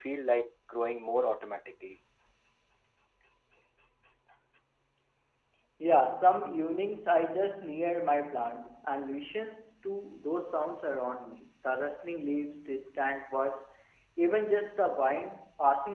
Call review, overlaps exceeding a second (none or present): none